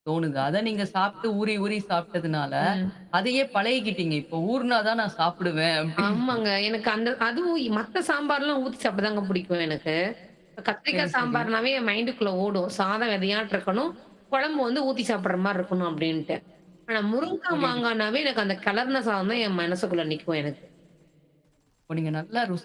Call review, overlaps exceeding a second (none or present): none